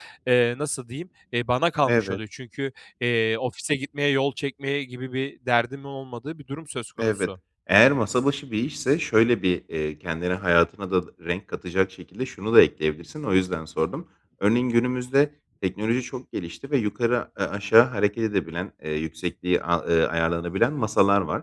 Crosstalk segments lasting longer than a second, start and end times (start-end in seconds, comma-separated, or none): none